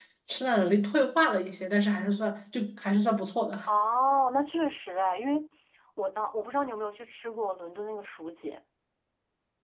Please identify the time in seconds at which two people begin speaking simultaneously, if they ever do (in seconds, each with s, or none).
none